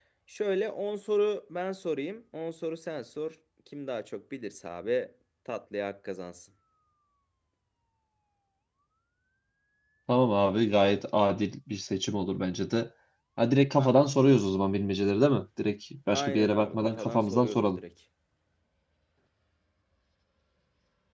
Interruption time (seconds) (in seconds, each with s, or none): 16.1 s